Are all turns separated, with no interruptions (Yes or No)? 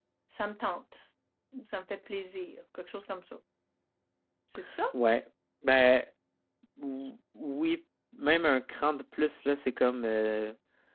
Yes